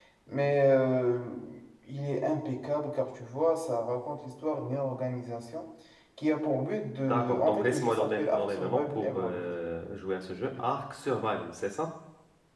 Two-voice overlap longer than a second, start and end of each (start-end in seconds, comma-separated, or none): 7.1-9.5